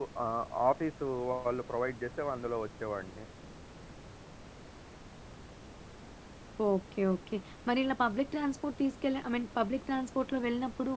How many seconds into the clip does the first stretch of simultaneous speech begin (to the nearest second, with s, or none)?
none